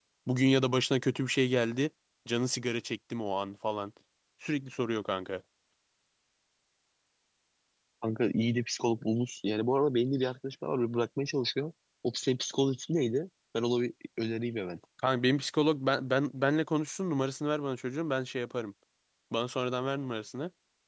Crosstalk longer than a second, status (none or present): none